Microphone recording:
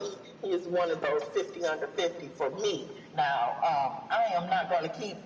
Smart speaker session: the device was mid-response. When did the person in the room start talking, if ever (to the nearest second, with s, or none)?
none